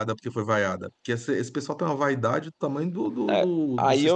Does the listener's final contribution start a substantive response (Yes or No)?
Yes